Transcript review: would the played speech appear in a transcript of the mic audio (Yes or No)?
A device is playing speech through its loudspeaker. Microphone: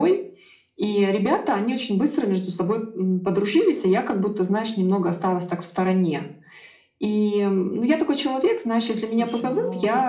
Yes